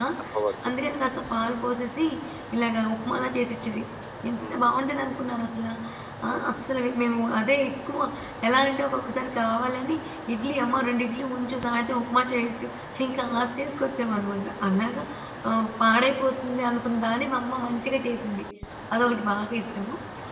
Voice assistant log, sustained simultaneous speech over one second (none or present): none